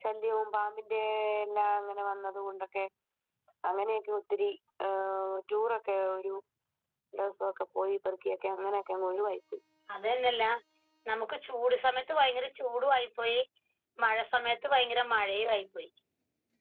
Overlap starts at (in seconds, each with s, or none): none